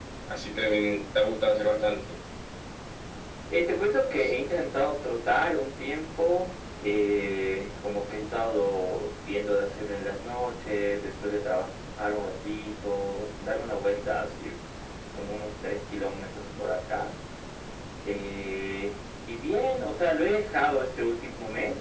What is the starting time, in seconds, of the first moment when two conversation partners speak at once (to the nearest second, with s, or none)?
none